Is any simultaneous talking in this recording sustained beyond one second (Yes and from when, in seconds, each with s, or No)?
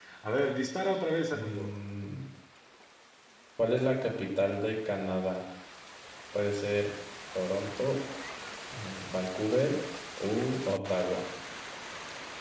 No